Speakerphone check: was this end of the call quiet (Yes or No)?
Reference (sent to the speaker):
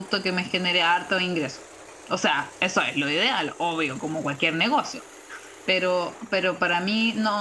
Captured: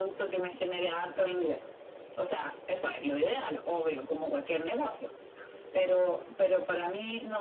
Yes